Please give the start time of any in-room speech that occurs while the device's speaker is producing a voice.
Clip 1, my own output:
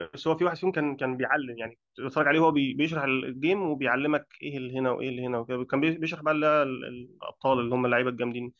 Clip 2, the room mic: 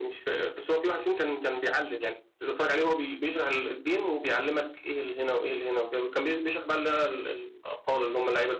none

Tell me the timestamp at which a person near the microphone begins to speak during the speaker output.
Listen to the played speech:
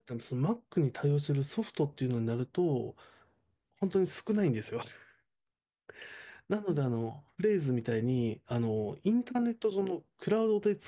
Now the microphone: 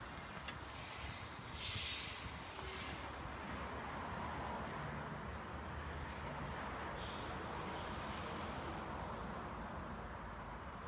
none

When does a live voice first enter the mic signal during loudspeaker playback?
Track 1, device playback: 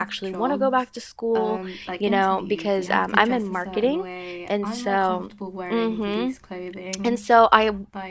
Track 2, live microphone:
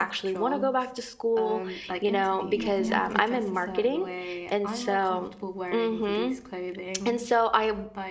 2.5 s

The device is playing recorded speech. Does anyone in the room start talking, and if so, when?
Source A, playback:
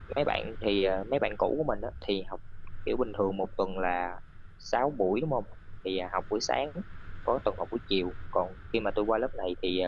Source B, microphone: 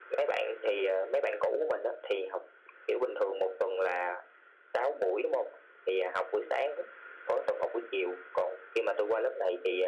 none

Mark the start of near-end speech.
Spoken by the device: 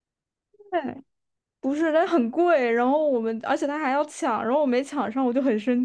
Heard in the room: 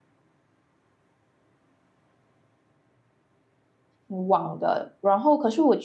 4.1 s

